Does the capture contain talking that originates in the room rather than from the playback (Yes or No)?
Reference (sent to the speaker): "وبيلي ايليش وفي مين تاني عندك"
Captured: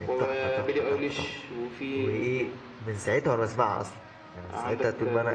Yes